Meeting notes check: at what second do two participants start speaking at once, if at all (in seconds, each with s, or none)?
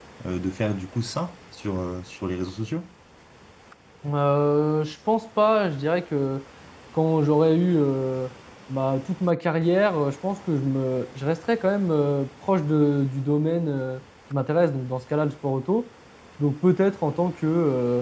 none